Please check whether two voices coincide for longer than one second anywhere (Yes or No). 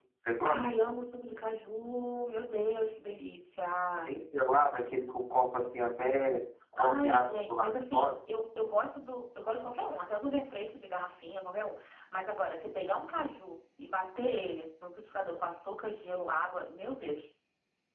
Yes